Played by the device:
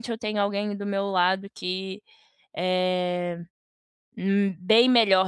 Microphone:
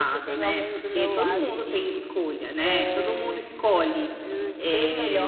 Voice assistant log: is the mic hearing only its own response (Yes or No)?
No